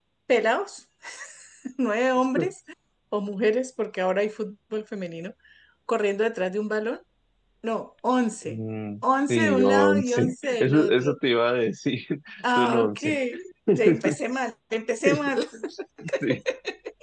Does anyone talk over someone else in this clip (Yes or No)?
Yes